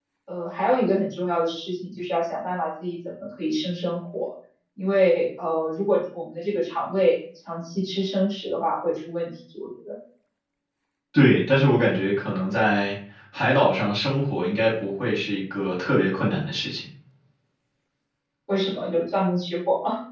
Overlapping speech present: No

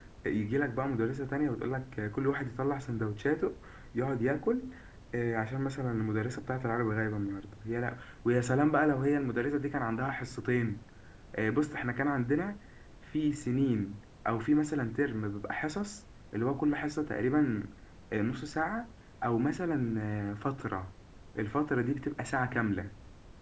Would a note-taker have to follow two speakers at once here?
No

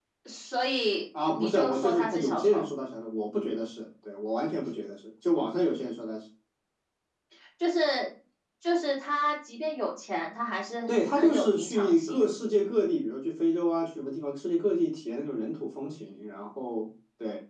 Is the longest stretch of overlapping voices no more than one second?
No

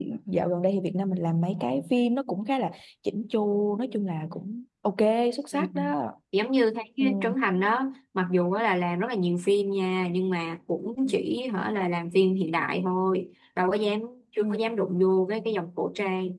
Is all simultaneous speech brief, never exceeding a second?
Yes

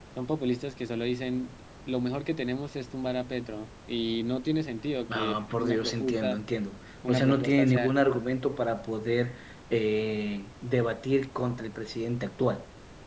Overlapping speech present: Yes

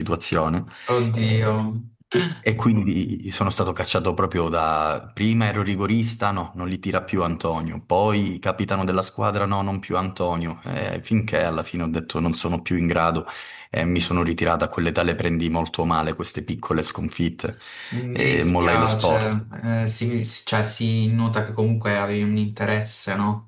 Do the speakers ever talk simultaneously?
Yes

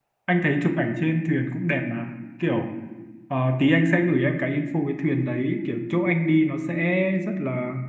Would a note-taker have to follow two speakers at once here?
No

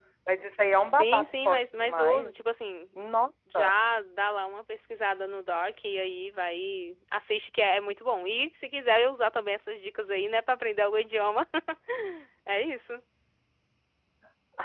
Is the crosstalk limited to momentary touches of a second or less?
No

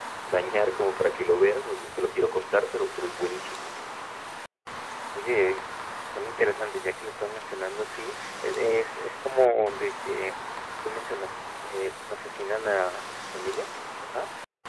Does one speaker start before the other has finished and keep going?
No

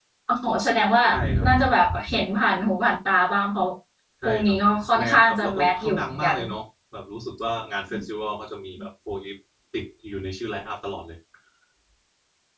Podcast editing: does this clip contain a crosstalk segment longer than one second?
Yes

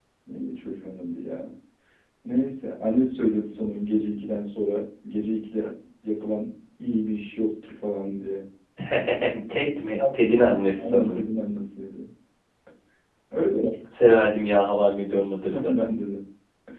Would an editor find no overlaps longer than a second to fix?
No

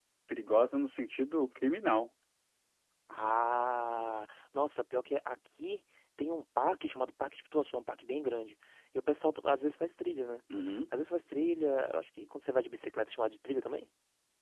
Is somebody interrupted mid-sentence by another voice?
No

